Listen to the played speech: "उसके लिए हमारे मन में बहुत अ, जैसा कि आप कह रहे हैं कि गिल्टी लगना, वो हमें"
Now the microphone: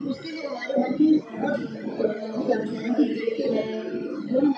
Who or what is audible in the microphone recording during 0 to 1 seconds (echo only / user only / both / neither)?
echo only